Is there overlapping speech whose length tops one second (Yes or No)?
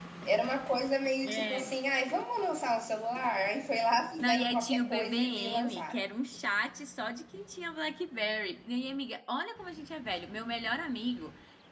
Yes